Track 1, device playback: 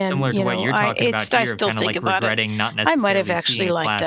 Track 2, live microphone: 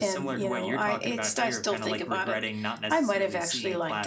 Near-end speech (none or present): none